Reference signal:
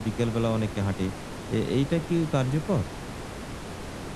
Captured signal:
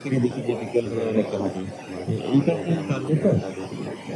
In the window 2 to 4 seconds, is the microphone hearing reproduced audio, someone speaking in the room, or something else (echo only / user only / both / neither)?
both